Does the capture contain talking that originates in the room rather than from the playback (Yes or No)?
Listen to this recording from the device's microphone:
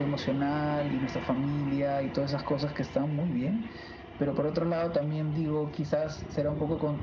No